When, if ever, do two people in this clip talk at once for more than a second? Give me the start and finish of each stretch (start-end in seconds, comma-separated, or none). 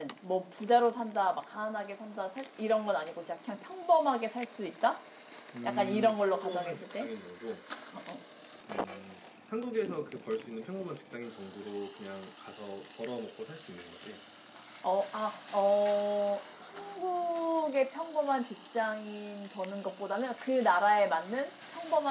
5.6-7.1